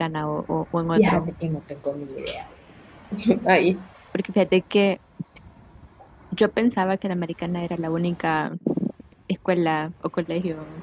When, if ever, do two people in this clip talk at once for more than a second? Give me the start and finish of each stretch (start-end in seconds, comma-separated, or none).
none